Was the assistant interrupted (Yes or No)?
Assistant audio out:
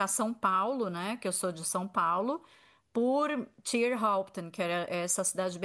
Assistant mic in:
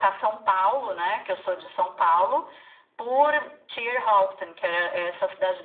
No